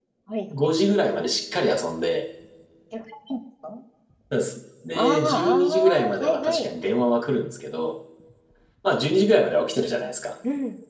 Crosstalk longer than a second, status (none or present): present